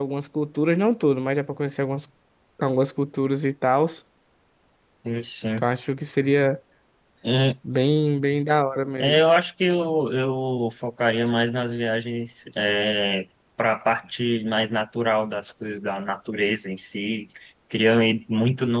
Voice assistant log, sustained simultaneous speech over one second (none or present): none